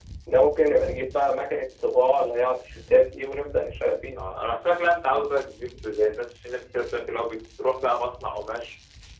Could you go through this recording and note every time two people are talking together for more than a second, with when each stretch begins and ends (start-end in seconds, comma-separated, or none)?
none